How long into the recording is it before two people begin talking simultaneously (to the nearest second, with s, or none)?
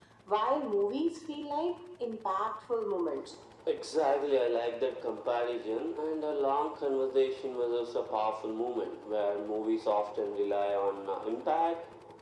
none